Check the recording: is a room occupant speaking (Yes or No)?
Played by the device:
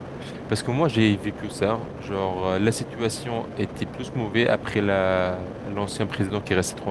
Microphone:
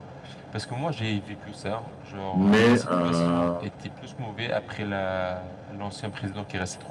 Yes